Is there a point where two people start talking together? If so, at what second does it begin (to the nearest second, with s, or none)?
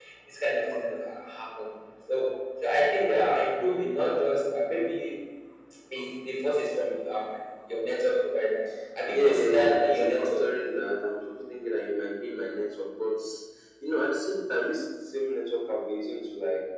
9 s